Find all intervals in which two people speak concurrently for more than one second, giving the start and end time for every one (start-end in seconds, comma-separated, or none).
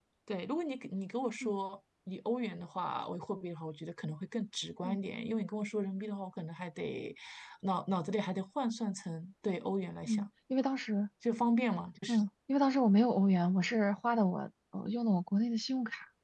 none